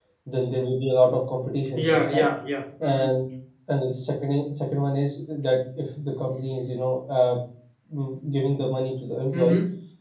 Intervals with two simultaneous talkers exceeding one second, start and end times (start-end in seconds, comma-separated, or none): none